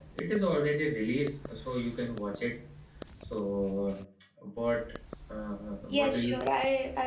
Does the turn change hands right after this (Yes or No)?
Yes